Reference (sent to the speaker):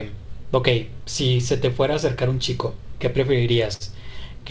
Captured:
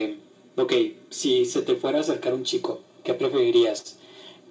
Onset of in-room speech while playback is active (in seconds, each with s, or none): none